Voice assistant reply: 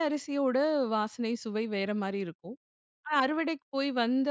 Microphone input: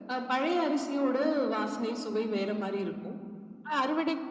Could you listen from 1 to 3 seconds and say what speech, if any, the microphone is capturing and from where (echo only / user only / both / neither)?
echo only